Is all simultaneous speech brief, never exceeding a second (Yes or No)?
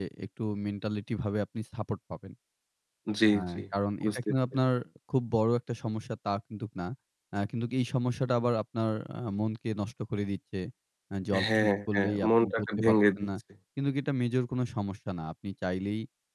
No